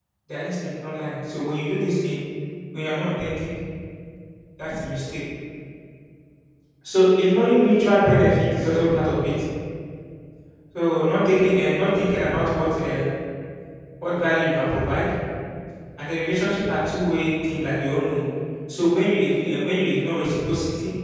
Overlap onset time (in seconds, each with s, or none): none